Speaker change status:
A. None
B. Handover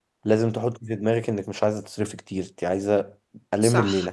B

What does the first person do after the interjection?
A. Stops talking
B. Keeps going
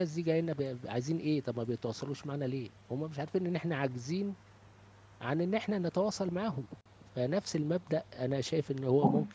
B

